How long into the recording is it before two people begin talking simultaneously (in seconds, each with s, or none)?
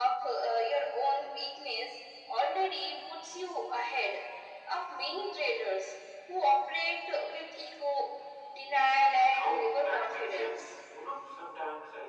9.4 s